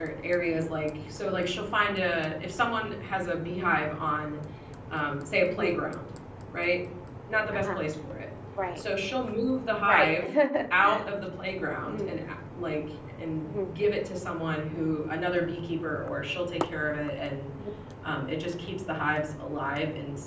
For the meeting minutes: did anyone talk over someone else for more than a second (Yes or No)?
No